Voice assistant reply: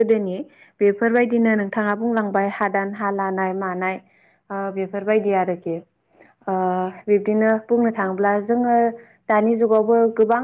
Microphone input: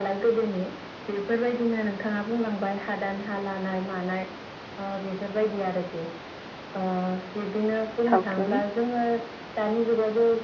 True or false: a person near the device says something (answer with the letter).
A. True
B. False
A